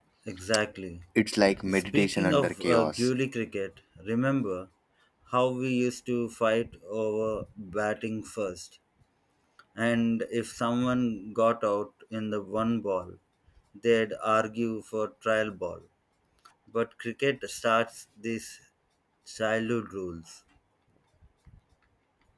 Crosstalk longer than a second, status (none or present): present